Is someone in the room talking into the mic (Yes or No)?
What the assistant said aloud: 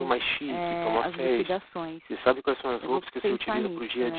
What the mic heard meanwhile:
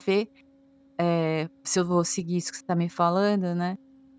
Yes